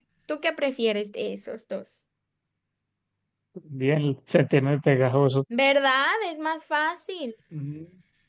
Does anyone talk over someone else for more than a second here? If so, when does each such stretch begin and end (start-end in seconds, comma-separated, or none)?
none